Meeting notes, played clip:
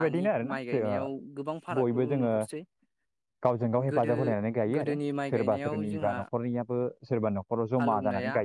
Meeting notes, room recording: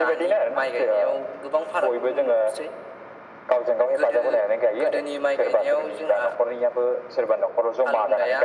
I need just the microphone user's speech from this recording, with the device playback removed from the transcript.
none

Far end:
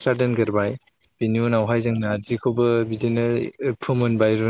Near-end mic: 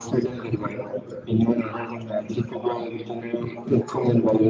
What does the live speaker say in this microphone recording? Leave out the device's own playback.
none

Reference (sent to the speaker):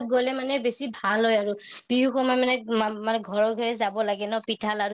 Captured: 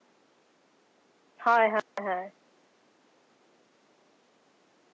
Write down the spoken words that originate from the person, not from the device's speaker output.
হয় হয় হয়

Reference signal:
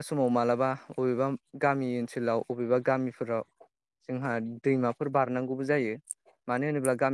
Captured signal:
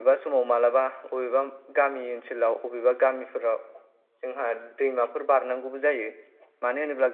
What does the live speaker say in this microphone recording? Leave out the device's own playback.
none

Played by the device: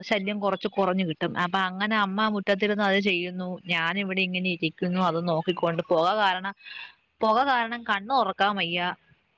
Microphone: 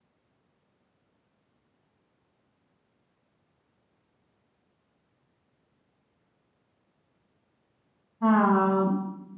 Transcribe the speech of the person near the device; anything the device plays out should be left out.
ആഹ്

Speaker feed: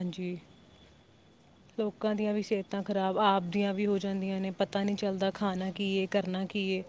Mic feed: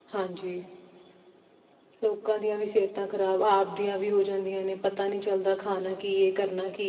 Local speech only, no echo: none

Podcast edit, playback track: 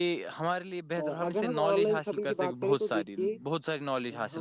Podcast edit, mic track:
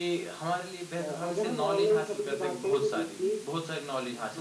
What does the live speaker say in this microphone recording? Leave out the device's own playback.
none

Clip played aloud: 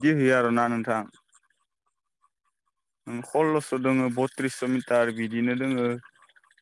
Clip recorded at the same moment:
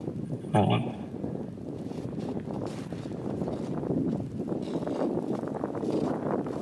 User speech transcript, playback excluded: अ आदसा

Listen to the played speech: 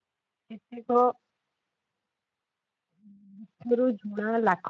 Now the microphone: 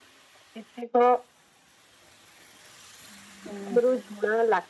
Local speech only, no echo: ଉଁ।

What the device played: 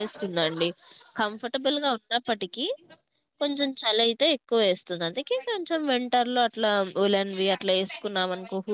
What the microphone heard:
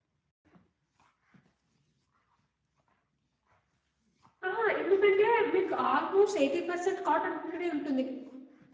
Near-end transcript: ఆహా ఎందుకంటే మీకు ఆల్మోస్ట్ ఏయిటి పర్సెంట్ కాటన్ గుడ్డనే ఉంటు

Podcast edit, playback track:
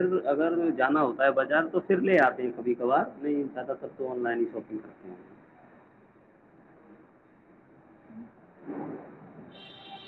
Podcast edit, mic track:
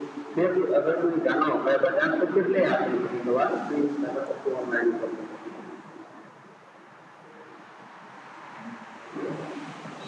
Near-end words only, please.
none

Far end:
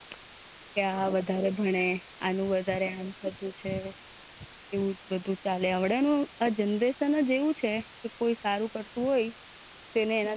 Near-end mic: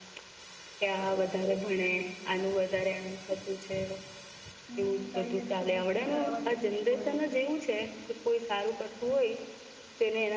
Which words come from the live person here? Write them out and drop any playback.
હમ કઈ નઈ હજે તો બુક બી ખઢાવવાની છે, ઇકોની

